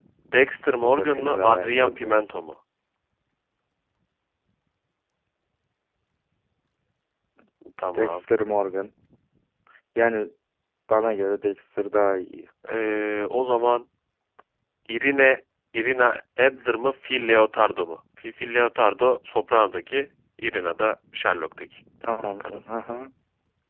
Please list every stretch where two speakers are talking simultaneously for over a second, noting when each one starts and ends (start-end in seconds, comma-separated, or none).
0.8-2.2